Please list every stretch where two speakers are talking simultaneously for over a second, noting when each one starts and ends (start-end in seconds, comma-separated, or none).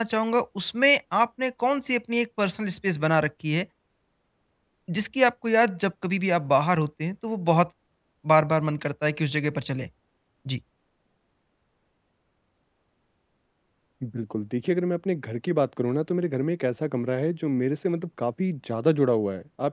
none